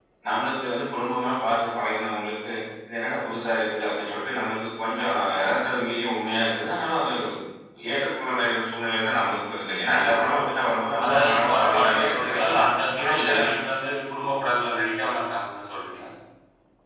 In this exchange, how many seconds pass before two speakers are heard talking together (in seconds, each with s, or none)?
11.0 s